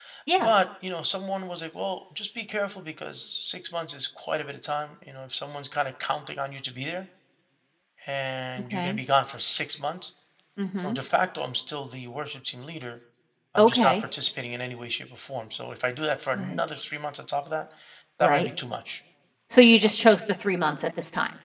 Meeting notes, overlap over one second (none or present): none